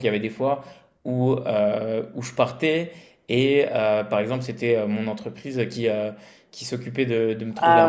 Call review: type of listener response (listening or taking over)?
listening